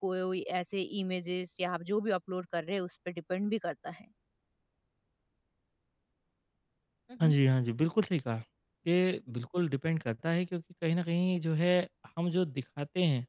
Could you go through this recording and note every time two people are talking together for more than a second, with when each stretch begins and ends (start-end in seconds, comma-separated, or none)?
none